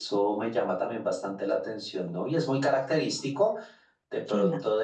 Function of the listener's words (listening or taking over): listening